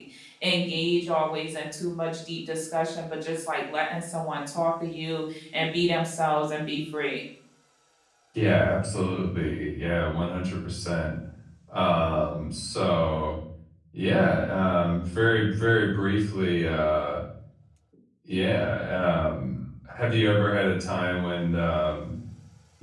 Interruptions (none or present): none